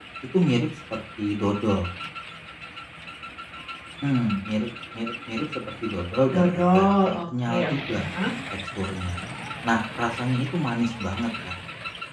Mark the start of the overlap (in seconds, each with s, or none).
6.3 s